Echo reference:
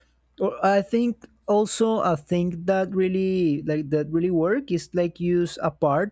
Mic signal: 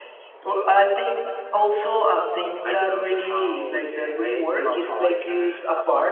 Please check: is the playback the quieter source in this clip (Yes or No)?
No